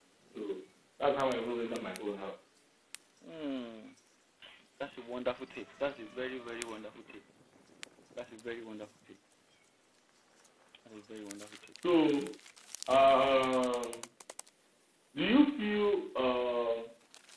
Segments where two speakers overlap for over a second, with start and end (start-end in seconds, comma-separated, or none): none